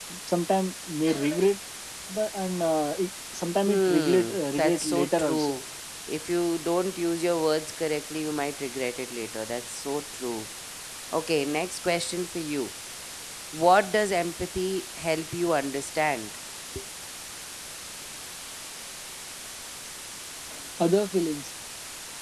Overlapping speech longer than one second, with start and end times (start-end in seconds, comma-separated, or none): 3.6-5.6